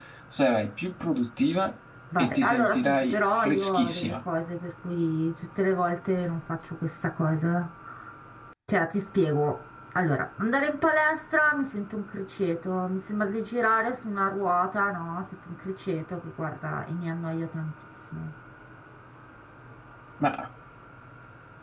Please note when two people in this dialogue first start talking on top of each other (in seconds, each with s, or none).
2.2 s